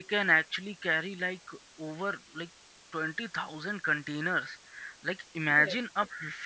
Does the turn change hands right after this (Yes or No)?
No